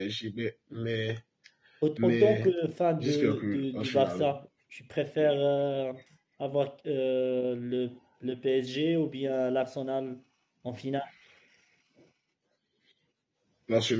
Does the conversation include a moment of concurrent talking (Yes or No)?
Yes